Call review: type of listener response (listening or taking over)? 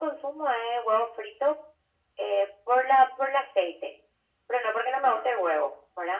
listening